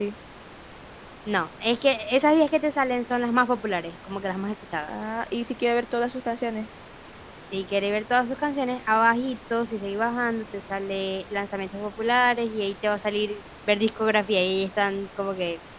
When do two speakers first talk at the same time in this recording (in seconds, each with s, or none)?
none